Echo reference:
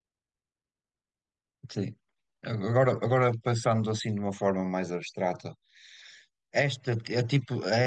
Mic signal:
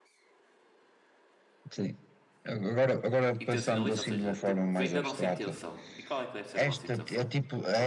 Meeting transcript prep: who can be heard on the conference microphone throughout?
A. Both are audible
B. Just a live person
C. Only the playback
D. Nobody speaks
A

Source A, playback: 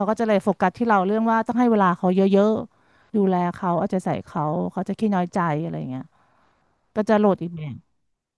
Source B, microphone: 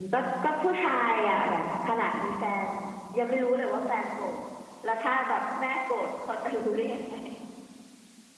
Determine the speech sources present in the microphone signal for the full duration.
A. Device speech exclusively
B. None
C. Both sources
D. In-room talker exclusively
D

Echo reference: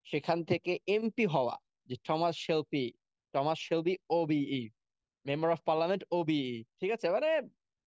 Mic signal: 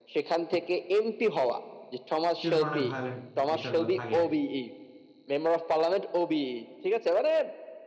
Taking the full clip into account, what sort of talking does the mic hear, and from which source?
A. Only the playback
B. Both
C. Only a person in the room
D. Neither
B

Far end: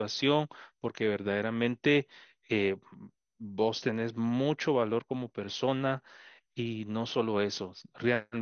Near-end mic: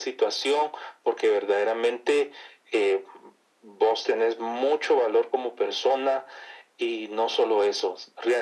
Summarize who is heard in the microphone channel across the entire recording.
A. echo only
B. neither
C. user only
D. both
A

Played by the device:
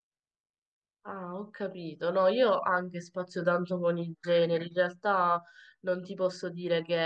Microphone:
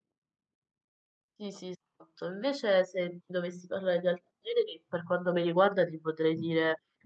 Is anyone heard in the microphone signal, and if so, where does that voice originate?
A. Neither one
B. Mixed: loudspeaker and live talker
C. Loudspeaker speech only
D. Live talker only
D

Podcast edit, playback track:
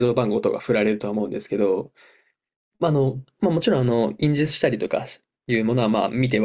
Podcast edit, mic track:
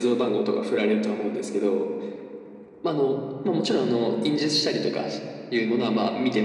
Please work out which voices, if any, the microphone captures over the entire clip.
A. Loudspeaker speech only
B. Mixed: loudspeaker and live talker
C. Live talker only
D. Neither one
A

